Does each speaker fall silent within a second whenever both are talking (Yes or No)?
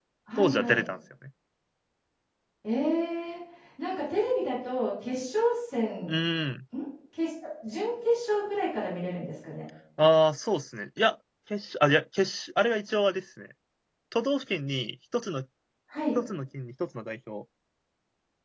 Yes